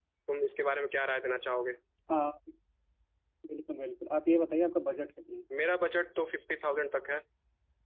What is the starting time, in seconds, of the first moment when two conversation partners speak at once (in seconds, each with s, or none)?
none